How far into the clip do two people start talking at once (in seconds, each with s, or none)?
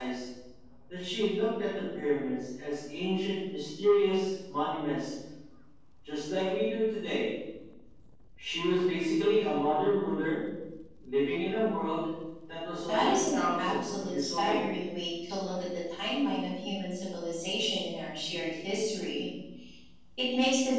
12.9 s